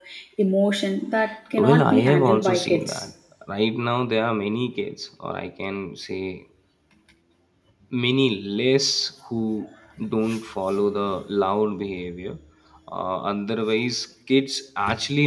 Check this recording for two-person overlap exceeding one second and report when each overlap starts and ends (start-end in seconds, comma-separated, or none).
1.6-3.0